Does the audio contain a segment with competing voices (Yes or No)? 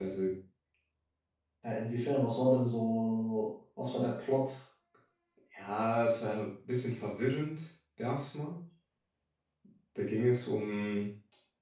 No